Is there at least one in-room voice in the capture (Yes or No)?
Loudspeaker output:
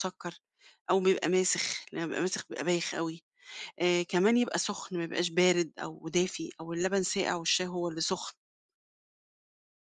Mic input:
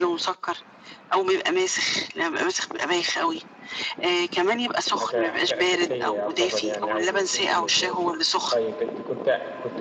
Yes